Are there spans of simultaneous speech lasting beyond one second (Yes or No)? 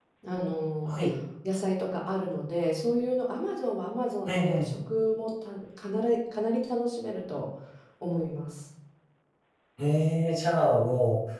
No